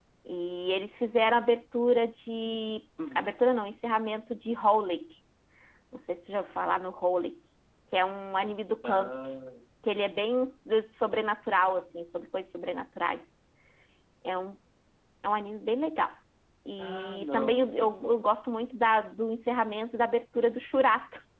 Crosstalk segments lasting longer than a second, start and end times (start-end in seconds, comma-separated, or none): 16.8-18.2